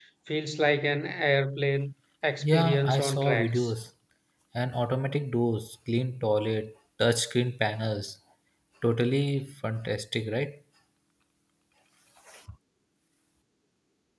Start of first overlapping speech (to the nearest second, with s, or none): 2 s